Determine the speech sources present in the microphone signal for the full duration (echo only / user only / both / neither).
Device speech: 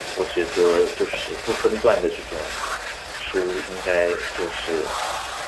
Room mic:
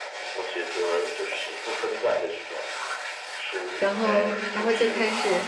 both